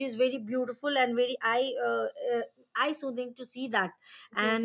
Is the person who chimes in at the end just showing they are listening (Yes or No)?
No